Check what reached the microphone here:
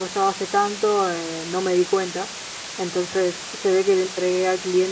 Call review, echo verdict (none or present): none